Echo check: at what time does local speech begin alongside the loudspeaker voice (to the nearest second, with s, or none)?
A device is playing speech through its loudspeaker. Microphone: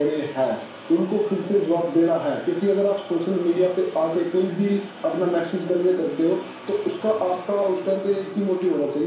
none